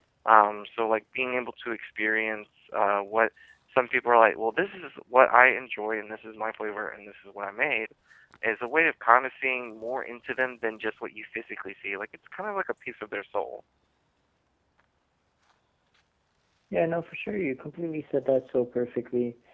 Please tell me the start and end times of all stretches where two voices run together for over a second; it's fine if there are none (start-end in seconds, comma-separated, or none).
none